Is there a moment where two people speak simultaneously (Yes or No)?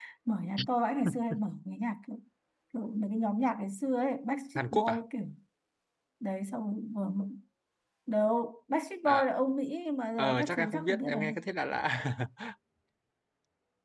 Yes